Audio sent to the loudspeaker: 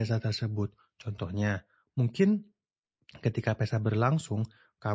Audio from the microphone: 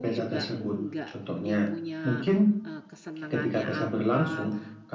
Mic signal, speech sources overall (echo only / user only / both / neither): both